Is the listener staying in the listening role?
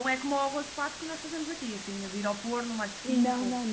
No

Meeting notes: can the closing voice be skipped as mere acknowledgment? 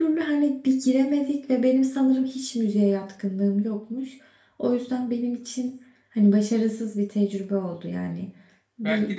No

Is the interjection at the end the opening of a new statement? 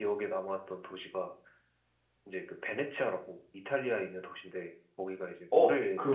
Yes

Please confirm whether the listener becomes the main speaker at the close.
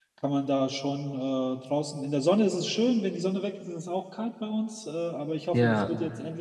No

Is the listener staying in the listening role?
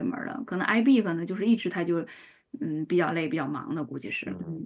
No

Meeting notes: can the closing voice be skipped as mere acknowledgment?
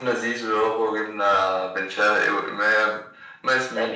No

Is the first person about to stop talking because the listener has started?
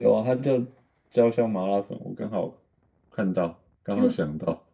Yes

